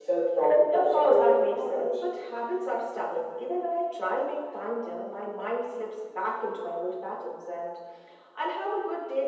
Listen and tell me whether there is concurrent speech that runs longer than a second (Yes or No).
Yes